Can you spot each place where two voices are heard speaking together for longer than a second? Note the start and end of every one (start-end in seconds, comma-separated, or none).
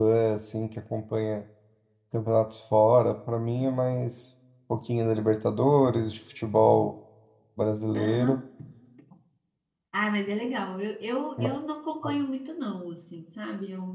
none